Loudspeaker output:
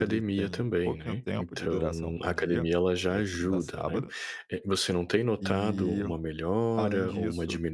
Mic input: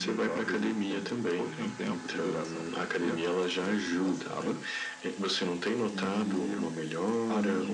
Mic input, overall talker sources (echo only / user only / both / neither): echo only